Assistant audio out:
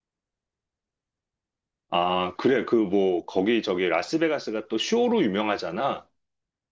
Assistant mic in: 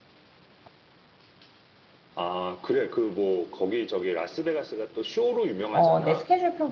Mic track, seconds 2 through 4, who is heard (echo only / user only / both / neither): echo only